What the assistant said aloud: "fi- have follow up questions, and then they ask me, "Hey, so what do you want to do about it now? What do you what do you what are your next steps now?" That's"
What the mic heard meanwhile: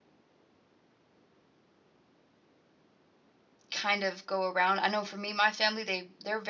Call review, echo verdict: none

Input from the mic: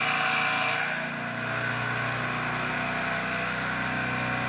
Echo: none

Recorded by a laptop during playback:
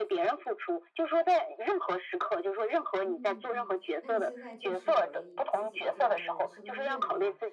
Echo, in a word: present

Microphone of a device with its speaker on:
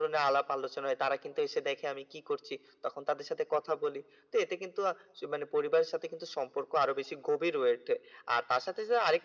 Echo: present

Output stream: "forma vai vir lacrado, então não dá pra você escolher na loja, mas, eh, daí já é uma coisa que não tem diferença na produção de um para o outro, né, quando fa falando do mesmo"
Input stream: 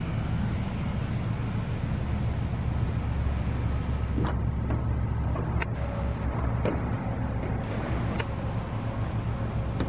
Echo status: none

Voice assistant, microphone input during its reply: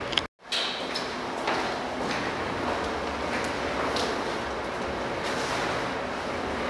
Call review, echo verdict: none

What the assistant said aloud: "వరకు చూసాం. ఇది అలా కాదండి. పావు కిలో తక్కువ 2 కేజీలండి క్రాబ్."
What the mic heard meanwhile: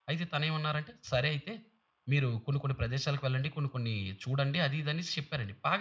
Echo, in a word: none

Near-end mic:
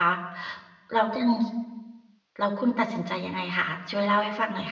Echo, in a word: none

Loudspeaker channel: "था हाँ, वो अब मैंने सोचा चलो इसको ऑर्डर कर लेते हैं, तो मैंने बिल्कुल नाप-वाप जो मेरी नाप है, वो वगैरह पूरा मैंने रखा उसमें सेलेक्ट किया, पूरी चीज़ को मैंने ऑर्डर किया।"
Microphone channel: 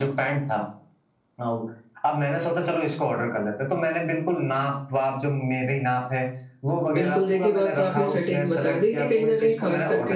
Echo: present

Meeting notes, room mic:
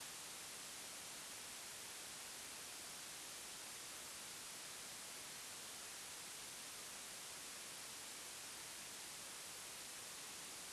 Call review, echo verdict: none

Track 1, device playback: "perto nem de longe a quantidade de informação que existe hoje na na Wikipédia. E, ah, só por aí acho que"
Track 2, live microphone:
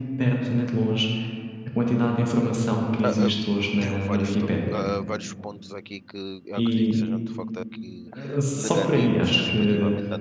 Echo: present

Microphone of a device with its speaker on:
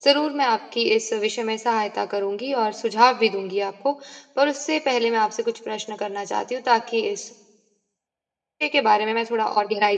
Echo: none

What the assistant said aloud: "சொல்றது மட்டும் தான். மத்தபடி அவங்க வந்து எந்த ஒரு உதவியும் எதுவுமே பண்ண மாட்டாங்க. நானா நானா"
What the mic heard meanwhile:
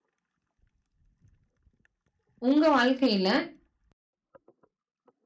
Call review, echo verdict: none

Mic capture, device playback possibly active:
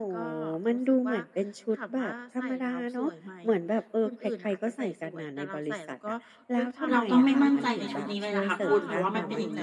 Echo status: present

